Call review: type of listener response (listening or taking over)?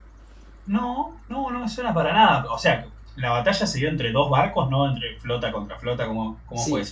taking over